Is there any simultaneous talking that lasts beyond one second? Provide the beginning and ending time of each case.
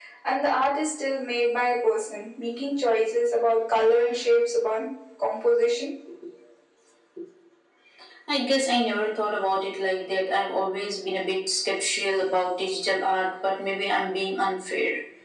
none

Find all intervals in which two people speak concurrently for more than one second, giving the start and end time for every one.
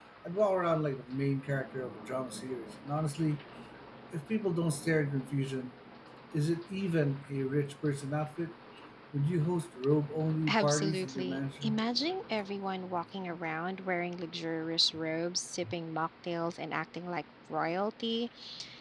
10.5-11.8

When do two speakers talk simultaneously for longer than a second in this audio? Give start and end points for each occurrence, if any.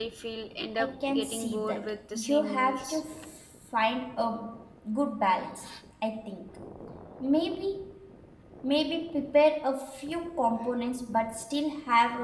0.8-3.0

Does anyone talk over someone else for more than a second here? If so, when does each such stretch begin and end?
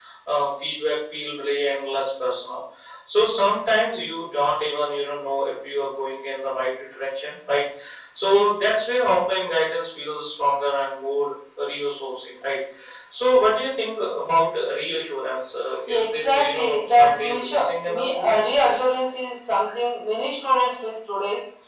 15.9-18.5

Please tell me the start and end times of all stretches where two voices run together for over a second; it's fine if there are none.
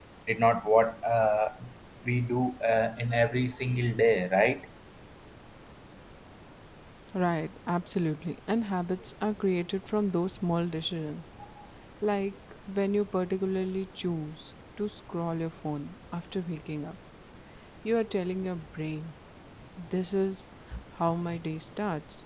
none

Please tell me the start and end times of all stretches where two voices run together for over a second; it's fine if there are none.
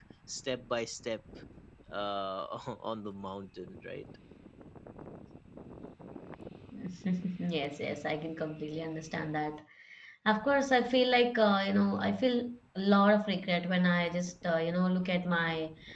none

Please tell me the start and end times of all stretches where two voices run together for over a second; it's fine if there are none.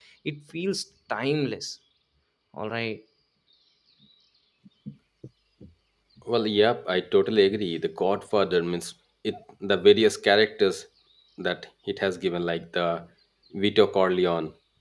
none

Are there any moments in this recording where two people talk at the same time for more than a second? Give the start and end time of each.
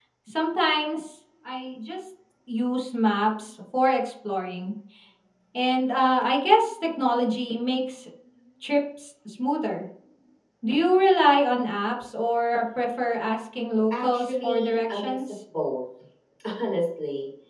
13.9-15.4

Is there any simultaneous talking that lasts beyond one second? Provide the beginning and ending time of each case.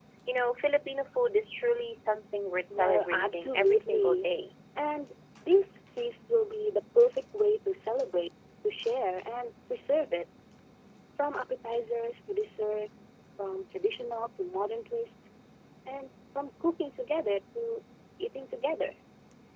2.7-4.3

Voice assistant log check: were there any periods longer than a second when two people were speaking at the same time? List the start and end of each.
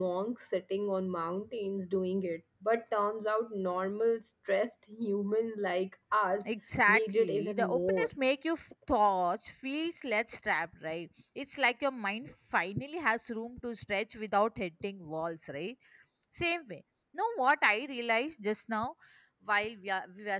6.9-8.1

